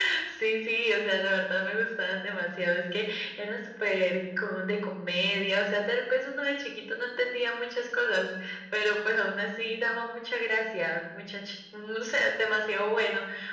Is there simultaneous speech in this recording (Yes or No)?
No